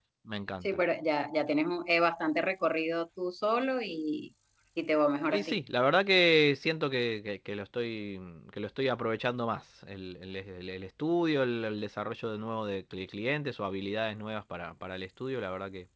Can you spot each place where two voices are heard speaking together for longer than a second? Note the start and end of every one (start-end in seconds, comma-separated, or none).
none